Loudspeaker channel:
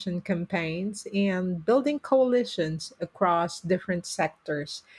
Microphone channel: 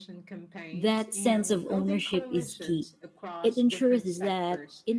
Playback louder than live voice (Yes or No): No